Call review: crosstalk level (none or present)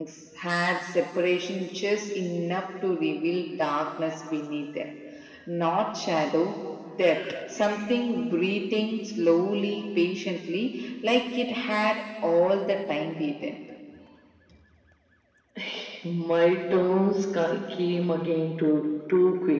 none